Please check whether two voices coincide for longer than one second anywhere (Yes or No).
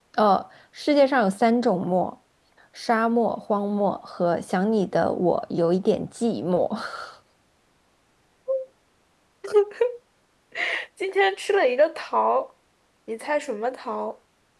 No